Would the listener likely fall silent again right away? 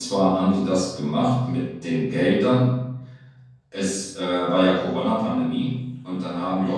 Yes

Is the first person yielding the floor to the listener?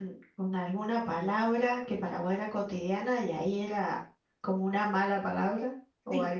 Yes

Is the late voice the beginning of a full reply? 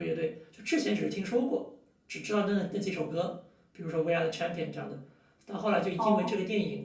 No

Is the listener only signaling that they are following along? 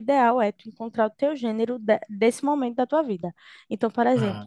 Yes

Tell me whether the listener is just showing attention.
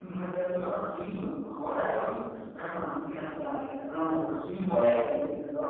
Yes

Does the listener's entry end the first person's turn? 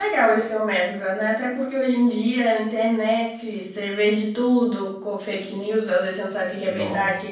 No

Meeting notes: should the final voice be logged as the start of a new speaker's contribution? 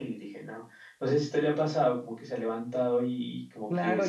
Yes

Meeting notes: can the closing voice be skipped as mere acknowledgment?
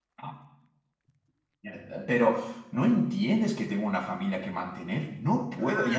No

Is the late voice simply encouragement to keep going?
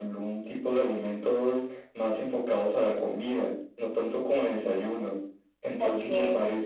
Yes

